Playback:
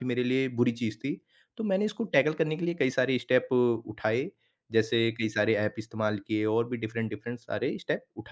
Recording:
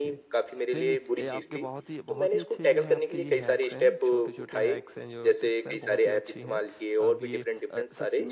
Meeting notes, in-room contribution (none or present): present